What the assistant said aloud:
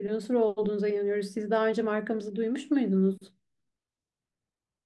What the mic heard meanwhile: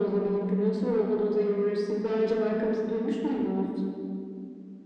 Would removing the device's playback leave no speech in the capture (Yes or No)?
Yes